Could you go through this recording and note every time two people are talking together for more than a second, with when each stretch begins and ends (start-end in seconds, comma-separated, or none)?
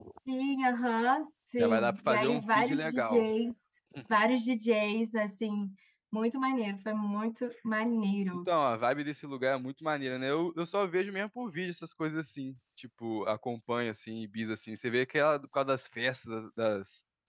1.6-3.2